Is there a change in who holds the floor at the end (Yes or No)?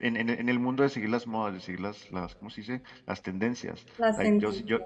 No